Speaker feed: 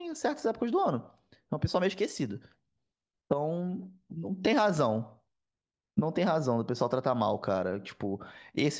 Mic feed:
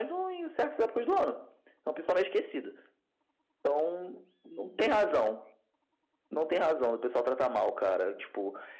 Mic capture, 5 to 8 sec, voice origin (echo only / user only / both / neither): echo only